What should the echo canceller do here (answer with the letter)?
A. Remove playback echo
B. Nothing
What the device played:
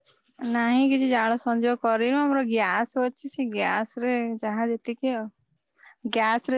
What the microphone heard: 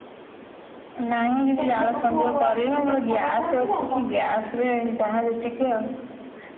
A